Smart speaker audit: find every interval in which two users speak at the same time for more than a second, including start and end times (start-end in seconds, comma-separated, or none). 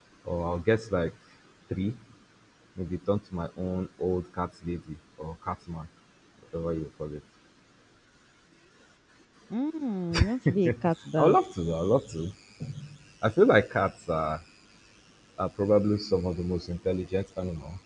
none